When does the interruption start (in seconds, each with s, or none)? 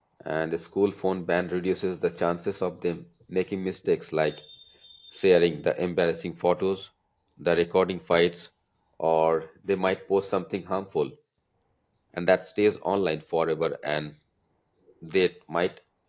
none